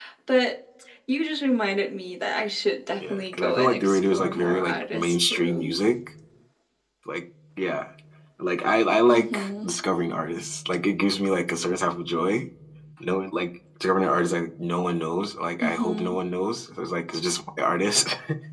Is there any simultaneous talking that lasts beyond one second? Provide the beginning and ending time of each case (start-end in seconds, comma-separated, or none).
3.1-5.7